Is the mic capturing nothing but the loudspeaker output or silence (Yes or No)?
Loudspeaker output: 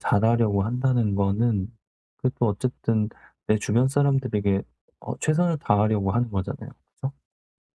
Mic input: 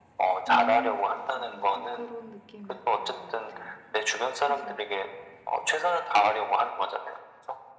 No